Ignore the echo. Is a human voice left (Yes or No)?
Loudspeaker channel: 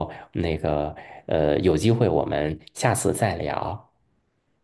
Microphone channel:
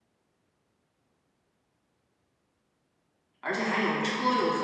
Yes